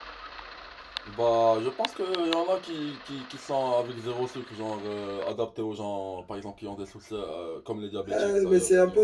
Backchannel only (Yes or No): No